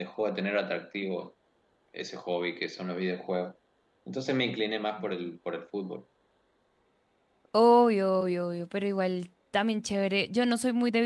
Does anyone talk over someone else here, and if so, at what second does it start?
none

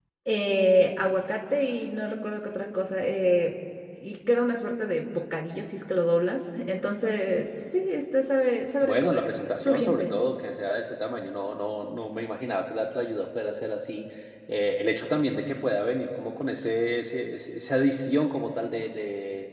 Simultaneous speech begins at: 8.8 s

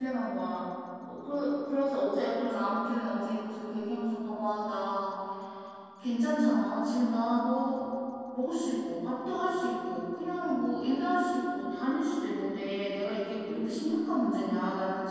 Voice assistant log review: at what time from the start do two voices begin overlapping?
none

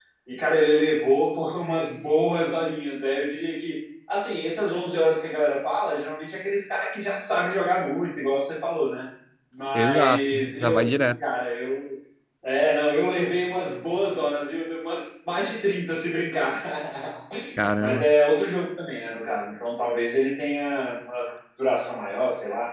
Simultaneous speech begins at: 9.7 s

